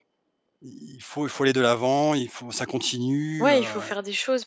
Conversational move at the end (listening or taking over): taking over